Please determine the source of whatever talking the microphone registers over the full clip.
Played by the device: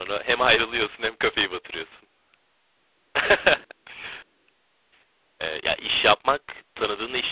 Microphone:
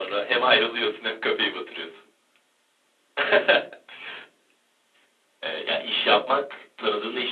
echo only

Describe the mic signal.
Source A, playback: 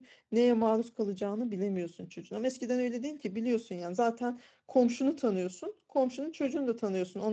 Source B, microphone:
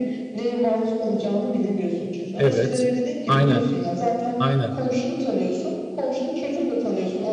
both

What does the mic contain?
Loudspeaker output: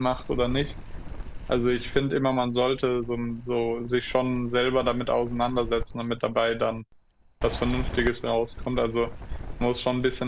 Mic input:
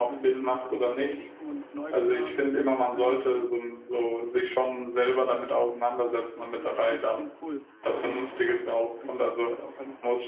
both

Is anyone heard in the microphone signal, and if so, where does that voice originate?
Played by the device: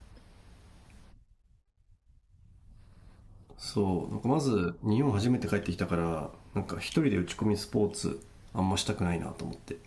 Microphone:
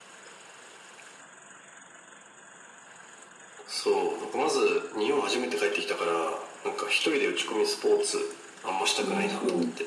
both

